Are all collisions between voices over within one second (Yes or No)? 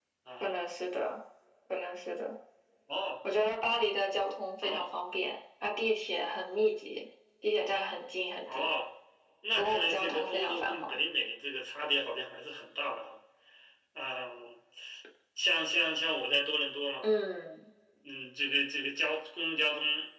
No